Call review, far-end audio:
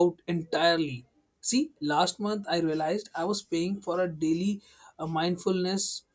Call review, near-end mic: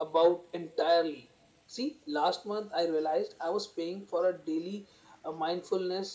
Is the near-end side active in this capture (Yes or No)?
No